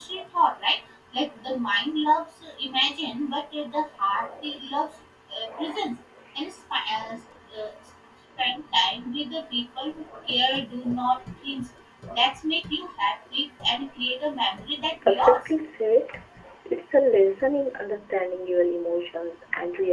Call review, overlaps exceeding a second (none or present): none